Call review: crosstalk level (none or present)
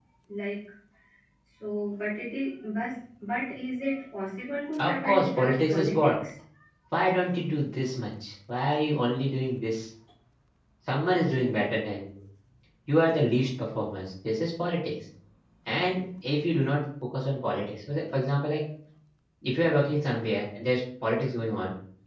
present